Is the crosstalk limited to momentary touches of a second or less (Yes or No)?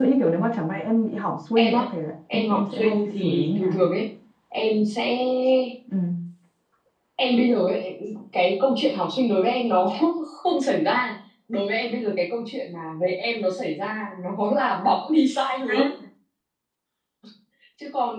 No